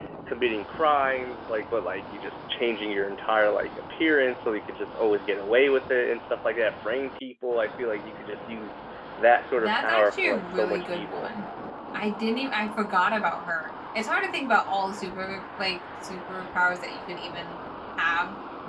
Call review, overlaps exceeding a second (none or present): present